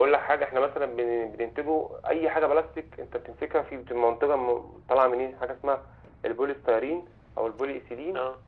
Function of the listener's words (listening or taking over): listening